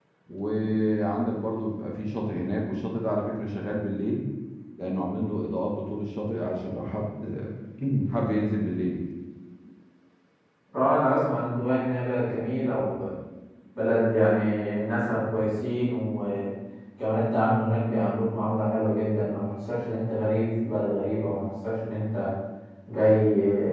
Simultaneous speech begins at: none

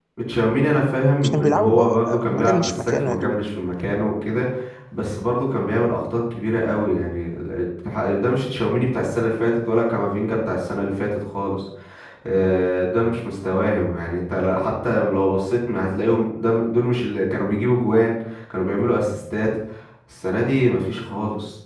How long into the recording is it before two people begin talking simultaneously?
1.2 s

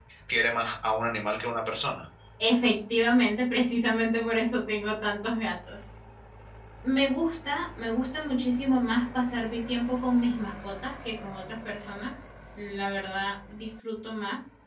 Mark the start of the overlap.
none

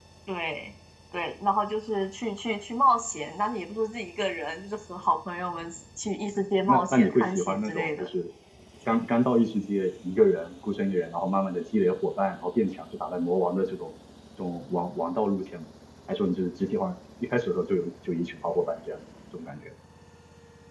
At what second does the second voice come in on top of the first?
6.7 s

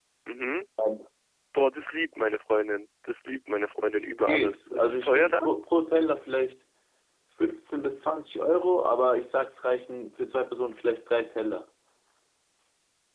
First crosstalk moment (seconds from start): 3.9 s

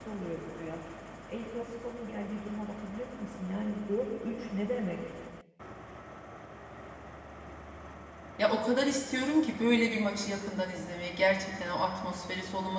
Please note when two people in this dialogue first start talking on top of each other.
none

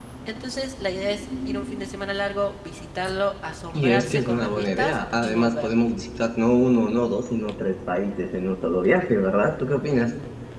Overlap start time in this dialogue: 3.7 s

